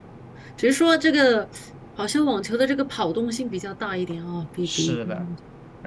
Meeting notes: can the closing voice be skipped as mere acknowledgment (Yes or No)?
No